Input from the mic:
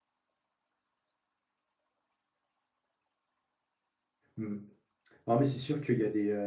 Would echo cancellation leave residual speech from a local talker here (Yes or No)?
Yes